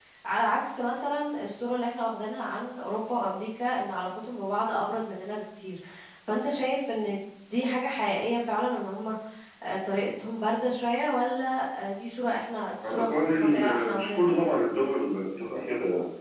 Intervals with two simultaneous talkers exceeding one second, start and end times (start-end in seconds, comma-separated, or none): 12.8-14.4